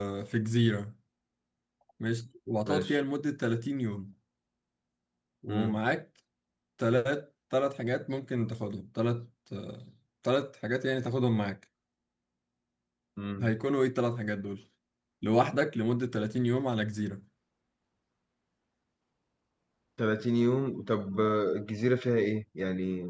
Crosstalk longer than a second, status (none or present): none